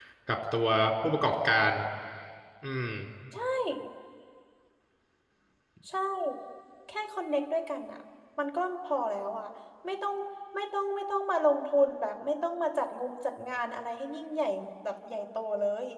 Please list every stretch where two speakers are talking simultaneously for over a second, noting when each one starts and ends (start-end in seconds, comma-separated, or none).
none